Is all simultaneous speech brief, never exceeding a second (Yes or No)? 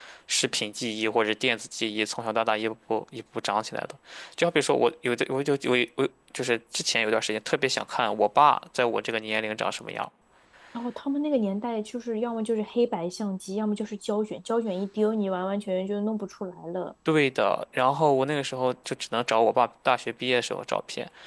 Yes